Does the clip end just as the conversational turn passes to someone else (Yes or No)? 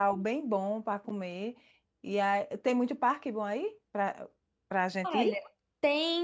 Yes